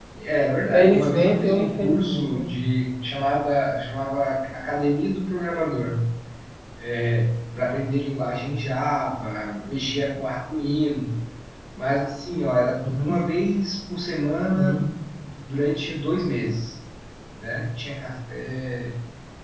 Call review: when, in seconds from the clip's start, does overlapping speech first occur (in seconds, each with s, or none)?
0.7 s